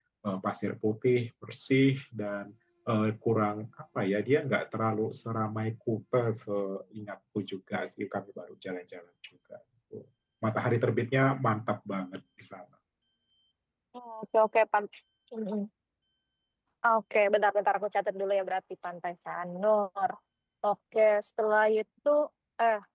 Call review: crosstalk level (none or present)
none